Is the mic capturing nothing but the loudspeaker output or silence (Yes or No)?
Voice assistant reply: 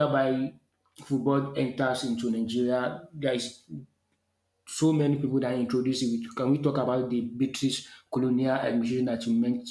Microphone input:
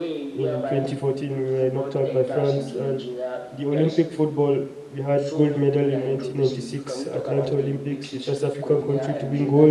No